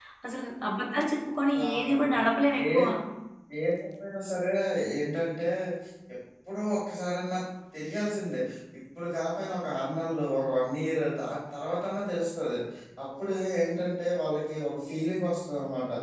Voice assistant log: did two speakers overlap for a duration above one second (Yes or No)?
No